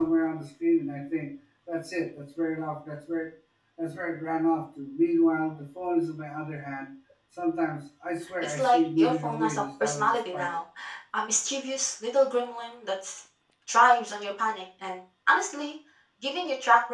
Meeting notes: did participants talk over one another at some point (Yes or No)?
Yes